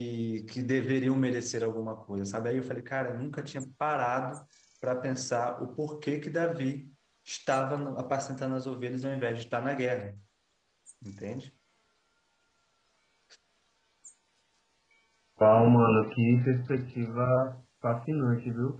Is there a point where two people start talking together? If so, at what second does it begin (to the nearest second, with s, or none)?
none